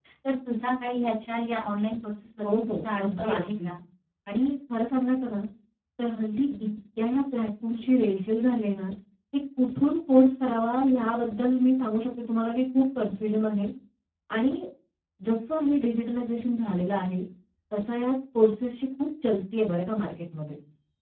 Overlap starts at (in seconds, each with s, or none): 2.4 s